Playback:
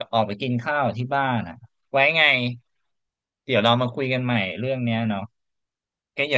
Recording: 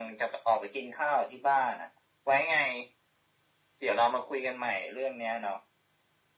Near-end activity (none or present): none